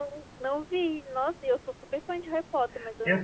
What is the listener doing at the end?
taking over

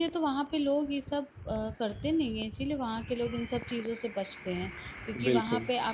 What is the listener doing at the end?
listening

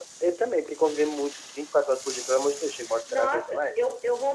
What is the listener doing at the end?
taking over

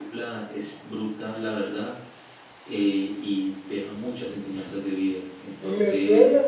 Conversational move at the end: taking over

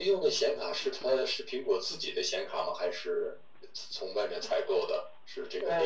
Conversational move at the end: taking over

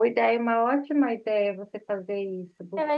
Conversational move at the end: taking over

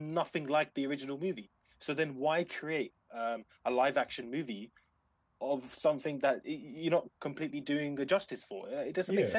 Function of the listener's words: taking over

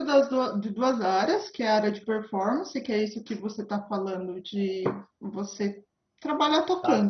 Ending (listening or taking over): listening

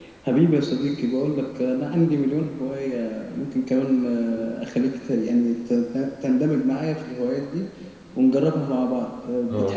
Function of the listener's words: taking over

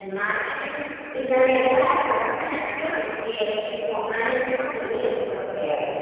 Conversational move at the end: listening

